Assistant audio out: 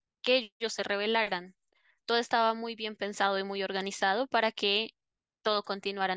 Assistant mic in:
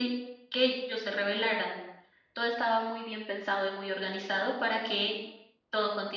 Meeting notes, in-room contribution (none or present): none